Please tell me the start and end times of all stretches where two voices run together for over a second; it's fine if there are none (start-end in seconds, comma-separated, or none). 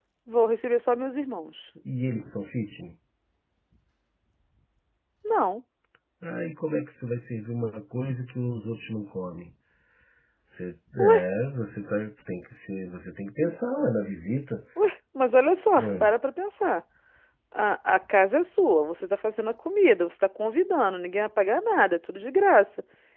none